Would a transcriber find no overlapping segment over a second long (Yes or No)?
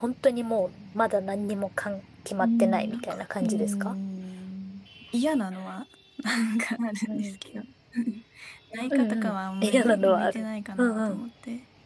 No